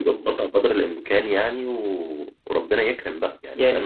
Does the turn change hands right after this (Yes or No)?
Yes